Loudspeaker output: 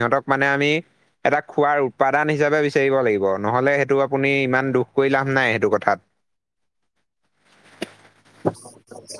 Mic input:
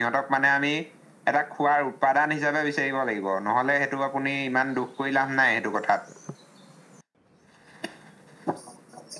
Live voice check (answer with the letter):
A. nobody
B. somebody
A